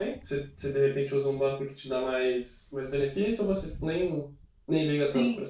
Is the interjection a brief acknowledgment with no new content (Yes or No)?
No